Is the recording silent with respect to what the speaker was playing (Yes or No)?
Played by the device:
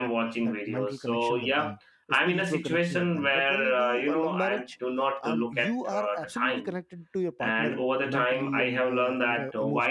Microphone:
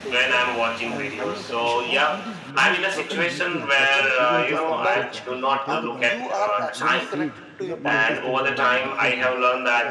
No